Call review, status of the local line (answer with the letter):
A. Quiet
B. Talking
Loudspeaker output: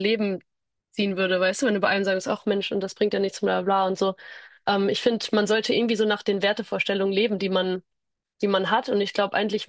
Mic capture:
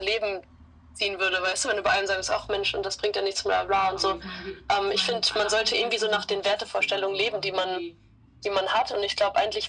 B